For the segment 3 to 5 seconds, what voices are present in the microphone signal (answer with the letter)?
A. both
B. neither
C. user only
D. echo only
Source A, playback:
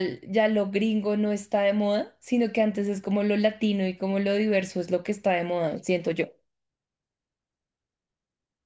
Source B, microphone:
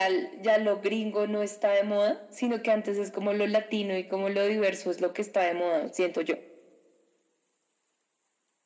D